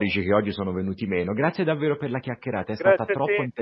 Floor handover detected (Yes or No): Yes